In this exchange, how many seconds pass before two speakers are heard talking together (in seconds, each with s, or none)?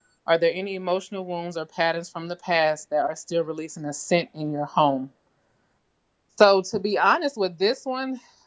none